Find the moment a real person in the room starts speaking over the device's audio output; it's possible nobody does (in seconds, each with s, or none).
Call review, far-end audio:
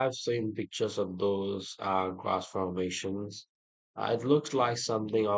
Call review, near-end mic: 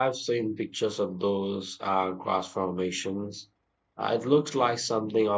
none